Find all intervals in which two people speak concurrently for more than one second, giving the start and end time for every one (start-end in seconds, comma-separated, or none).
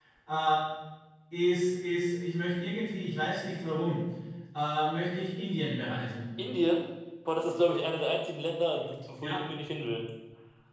none